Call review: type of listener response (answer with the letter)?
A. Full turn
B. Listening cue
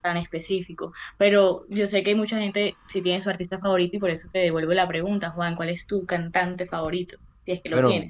A